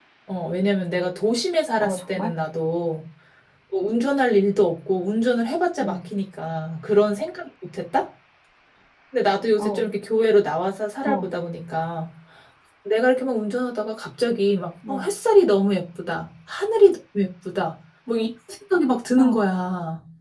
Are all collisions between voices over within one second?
Yes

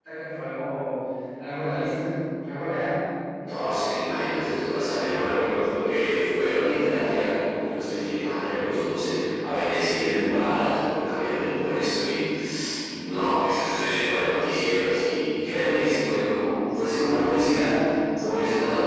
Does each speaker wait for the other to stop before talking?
Yes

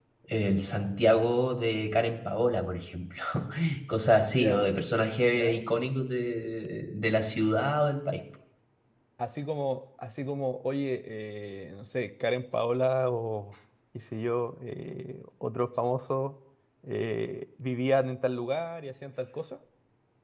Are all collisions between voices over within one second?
Yes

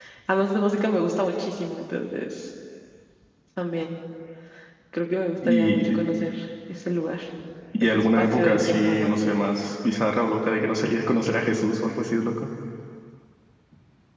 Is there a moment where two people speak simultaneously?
Yes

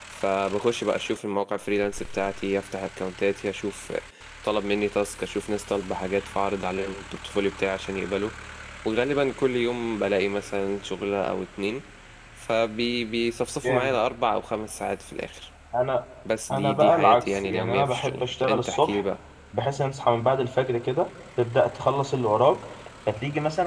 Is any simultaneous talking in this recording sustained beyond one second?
Yes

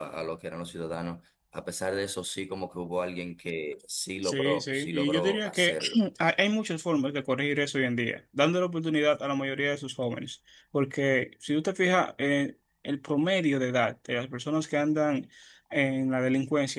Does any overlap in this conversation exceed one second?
Yes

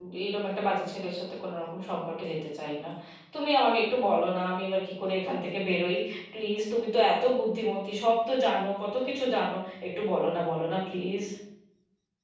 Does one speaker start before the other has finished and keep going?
No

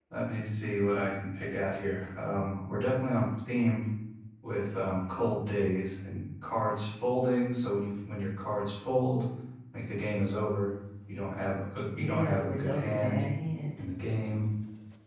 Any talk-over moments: Yes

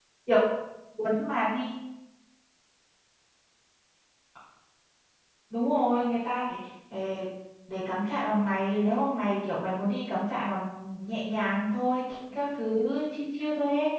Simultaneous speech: No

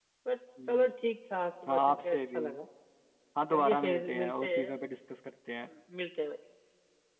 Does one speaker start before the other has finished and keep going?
Yes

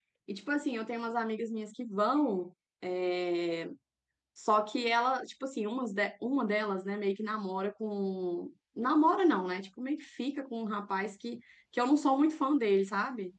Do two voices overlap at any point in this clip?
No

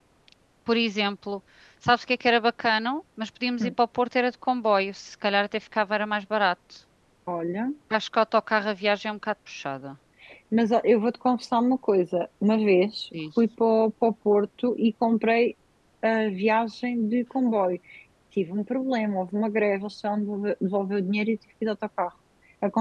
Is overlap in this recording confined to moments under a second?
Yes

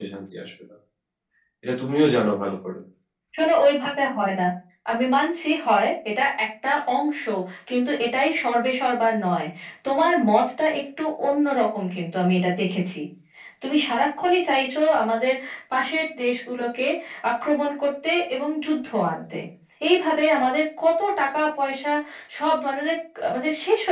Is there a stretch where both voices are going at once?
No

